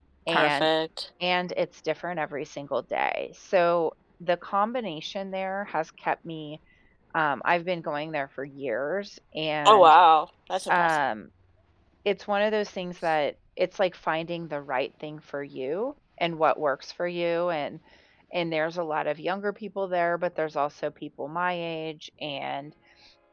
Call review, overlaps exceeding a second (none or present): none